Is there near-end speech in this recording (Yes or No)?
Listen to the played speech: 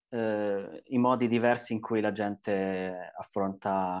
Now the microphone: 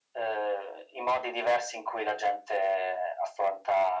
No